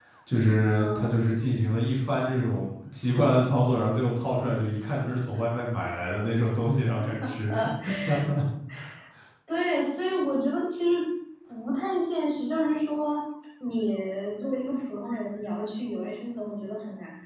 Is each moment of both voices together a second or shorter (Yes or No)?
Yes